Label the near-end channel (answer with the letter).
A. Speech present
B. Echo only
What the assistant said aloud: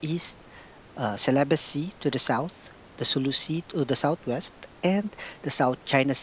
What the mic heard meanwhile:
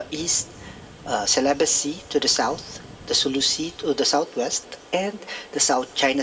B